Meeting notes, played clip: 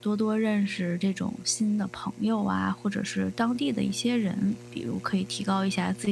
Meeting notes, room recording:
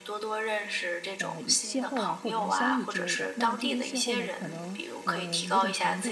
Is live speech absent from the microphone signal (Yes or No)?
No